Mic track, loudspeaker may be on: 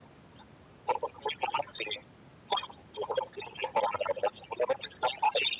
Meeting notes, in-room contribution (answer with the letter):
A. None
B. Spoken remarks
A